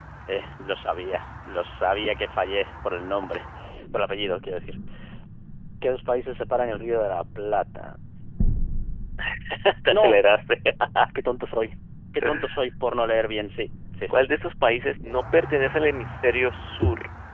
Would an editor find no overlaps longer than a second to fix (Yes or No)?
Yes